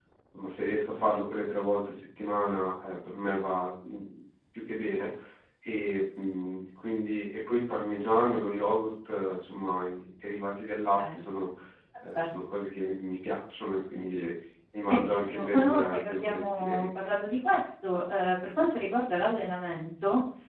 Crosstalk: present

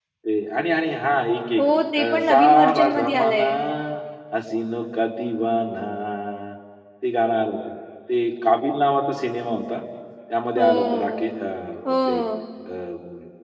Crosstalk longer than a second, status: present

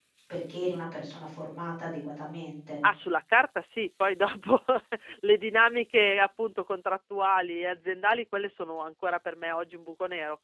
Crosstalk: none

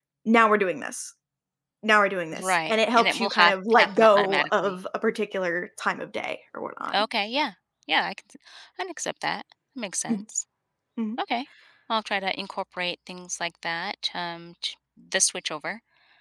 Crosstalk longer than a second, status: present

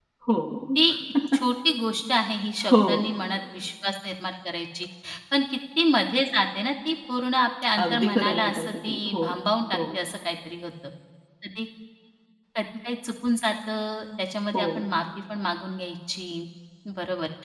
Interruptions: present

